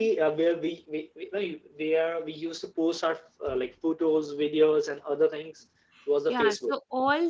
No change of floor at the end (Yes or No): No